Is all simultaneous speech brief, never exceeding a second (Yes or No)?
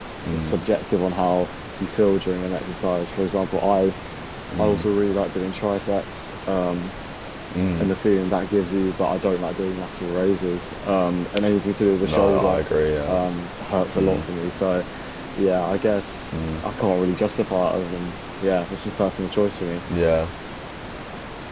Yes